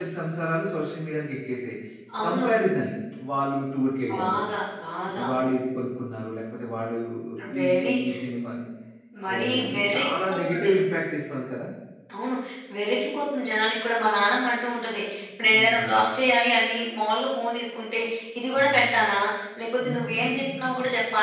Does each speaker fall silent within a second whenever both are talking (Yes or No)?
No